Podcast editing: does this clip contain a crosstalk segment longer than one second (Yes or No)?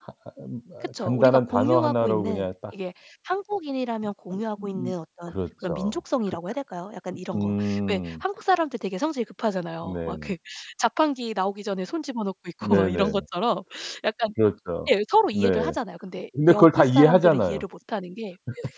Yes